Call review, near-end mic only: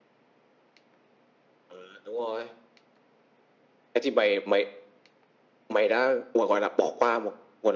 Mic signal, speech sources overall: echo only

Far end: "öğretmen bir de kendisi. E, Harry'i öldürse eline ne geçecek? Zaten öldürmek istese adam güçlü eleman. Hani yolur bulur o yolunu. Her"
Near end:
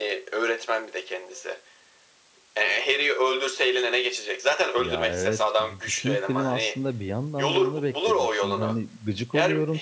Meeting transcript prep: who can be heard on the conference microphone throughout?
both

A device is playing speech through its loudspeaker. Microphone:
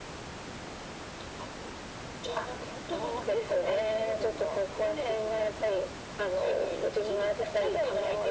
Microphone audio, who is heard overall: echo only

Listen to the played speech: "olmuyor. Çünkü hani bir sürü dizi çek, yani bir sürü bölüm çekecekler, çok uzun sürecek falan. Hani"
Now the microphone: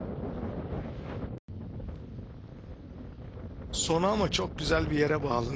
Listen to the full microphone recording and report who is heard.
user only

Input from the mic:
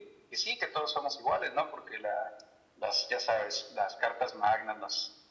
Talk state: echo only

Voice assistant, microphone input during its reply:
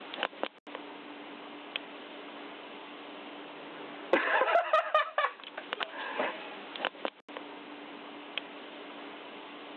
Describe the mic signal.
neither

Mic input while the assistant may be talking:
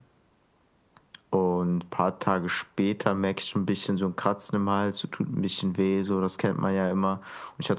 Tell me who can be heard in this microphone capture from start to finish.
echo only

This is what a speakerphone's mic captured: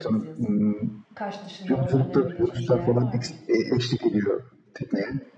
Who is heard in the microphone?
both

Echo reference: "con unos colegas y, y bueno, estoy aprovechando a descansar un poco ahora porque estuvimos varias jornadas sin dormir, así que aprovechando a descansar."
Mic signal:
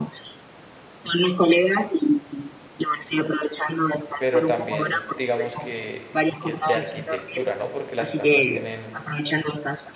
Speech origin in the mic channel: both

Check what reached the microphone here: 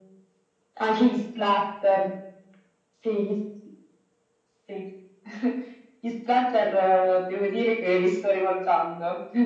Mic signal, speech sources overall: echo only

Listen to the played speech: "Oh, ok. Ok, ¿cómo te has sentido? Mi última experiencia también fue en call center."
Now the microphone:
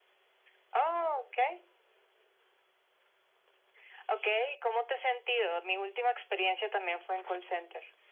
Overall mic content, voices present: echo only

